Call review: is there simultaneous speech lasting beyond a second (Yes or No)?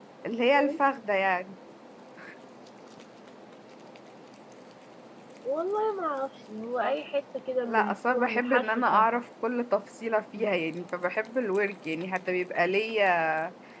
Yes